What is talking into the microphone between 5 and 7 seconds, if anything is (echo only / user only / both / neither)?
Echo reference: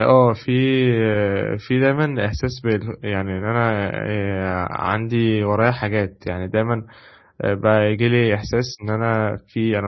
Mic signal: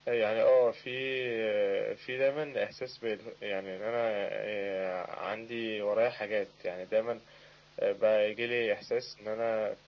echo only